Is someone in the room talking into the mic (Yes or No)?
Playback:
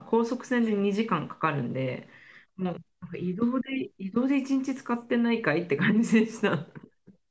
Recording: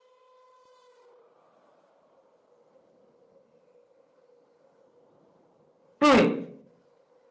Yes